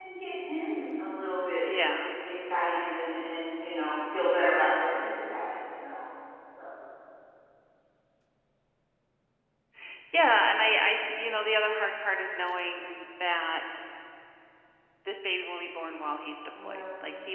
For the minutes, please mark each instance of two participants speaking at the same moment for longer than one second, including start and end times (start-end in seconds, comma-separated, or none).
none